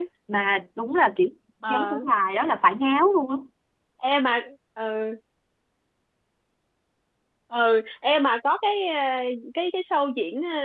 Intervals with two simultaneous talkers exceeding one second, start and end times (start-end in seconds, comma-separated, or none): none